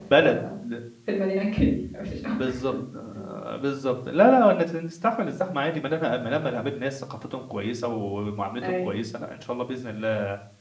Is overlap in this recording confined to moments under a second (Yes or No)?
Yes